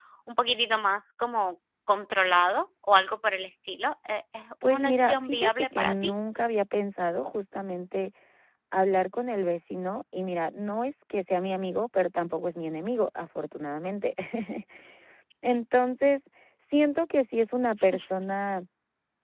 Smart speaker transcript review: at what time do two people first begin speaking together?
4.6 s

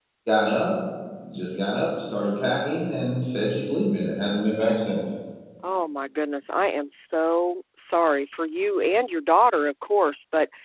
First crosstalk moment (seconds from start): none

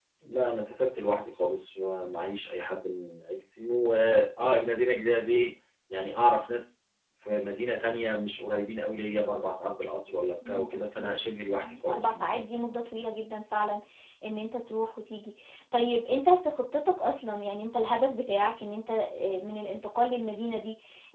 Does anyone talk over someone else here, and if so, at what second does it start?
10.4 s

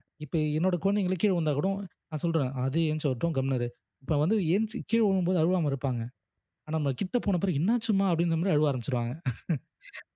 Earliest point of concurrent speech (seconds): none

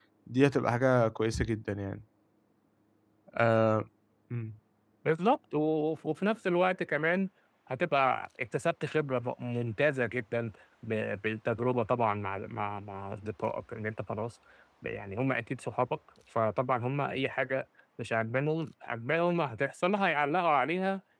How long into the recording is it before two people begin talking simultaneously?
none

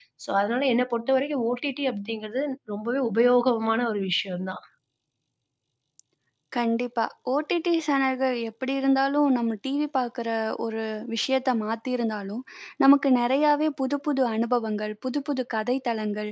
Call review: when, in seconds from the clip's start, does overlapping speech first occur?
none

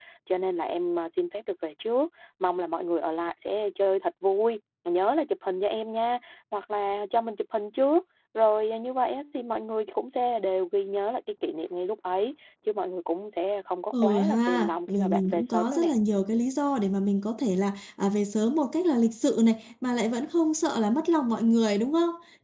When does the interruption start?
13.9 s

